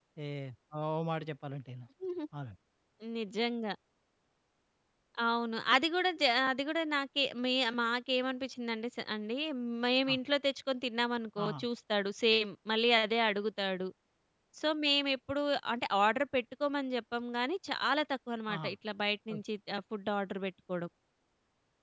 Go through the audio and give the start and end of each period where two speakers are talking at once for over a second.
none

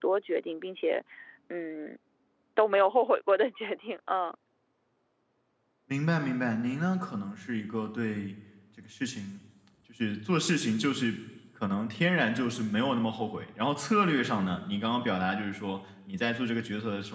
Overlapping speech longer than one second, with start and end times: none

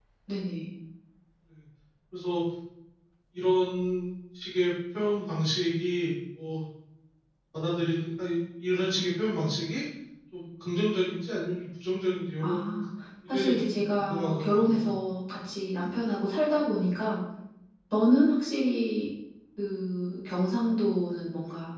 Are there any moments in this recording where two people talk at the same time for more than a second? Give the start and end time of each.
13.3-14.9

